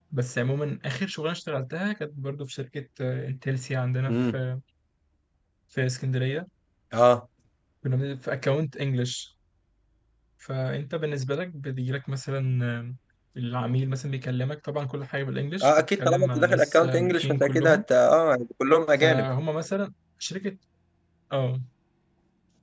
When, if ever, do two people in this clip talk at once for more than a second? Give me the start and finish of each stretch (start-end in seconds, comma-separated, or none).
15.6-17.8